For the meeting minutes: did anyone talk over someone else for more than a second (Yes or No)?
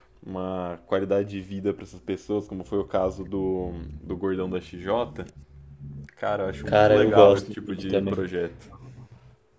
Yes